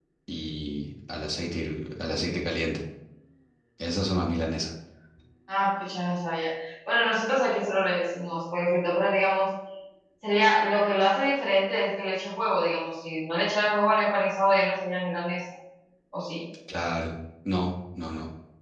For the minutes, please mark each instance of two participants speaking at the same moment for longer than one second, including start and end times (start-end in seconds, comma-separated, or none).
none